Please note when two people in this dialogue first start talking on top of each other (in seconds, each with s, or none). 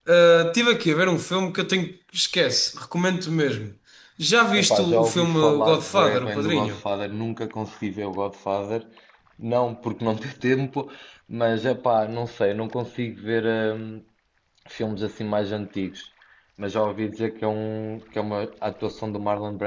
4.5 s